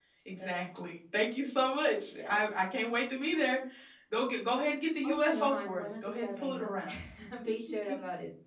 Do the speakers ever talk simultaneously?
Yes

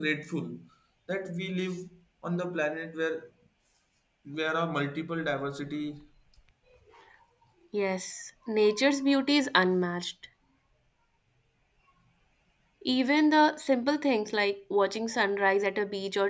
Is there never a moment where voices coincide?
Yes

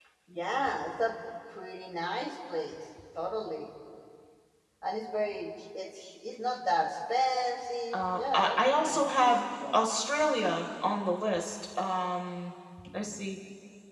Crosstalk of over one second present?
Yes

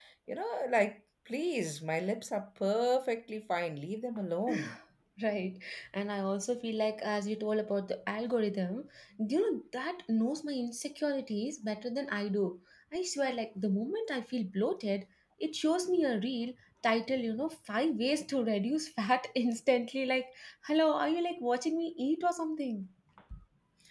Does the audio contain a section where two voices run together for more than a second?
No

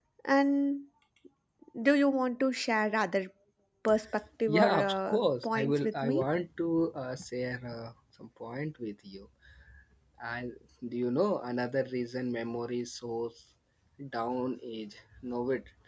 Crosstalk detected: Yes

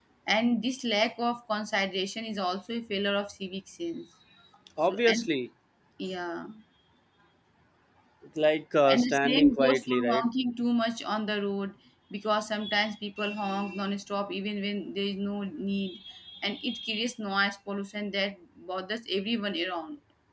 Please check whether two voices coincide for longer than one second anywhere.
Yes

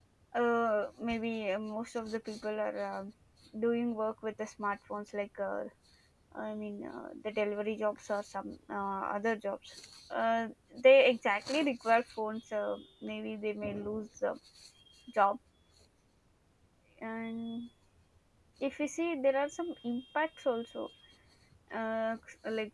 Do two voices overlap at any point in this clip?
No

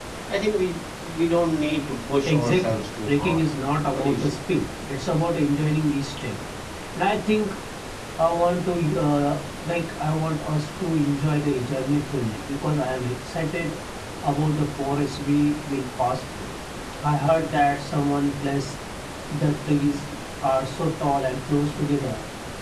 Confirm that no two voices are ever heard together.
No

